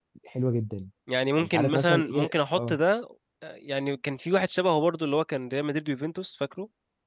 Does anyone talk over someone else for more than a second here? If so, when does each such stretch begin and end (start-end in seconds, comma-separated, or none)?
1.4-2.8